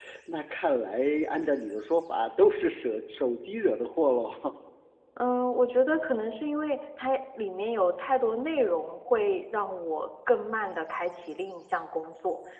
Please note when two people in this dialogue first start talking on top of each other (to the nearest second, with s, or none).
none